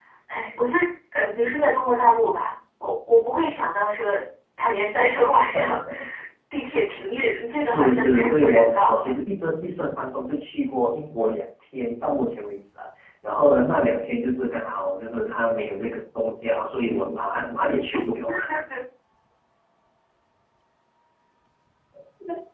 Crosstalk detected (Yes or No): Yes